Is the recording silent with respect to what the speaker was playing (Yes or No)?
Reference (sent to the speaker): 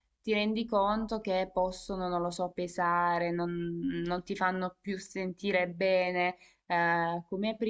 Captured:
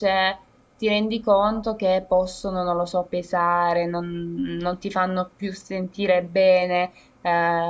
No